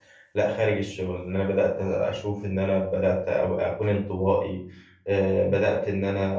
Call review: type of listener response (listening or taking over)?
listening